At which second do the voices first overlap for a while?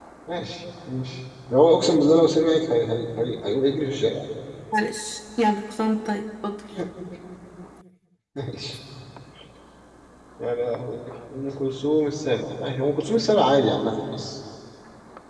none

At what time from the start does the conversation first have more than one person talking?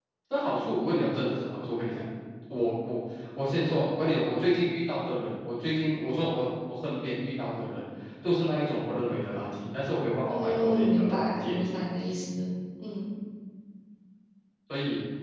10 s

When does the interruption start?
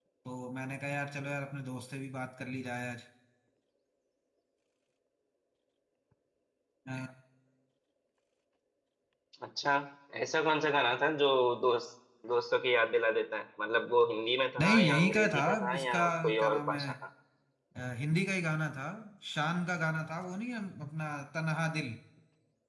15 s

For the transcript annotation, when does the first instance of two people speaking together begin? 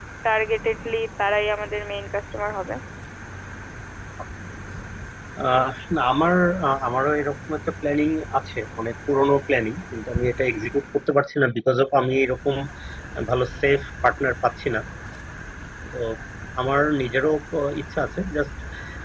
none

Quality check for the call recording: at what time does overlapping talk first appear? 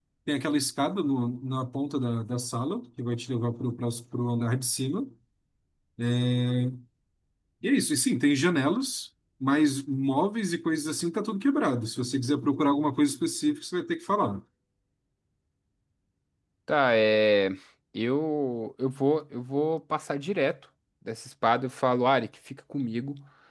none

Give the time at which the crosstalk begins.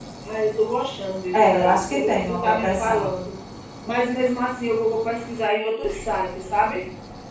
1 s

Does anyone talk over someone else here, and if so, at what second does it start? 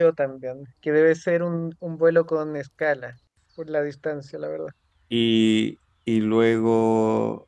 none

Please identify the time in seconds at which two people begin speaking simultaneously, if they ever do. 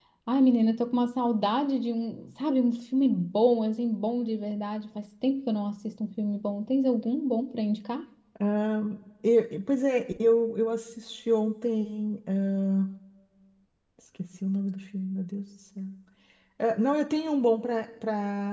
none

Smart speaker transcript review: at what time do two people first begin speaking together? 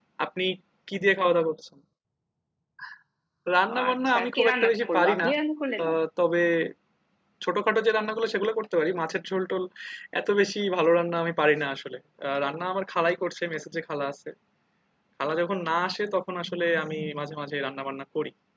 4 s

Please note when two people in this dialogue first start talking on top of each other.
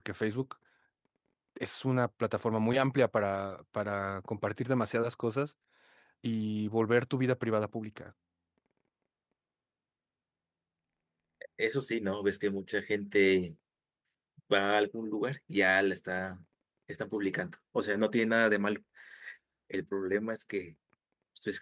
none

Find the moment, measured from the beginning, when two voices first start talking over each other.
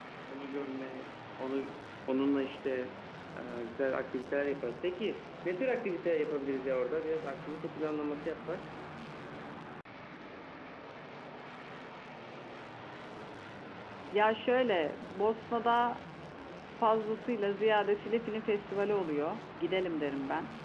none

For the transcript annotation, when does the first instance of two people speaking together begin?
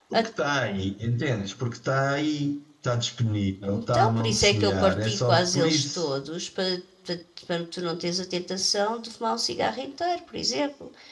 4 s

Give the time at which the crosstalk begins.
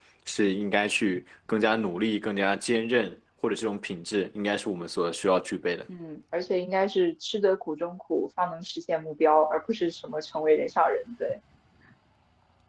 none

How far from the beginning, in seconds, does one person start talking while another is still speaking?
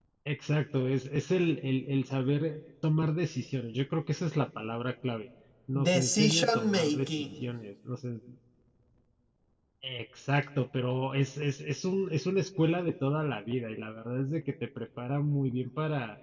6 s

